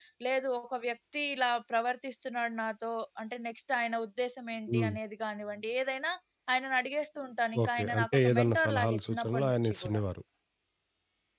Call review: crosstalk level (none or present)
present